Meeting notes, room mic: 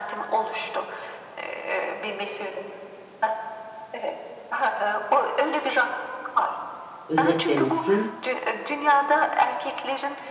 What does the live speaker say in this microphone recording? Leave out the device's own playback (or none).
özetlemişsin.